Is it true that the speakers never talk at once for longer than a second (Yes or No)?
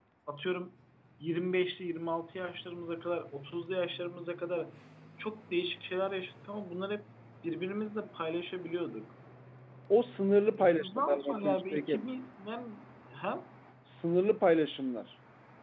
No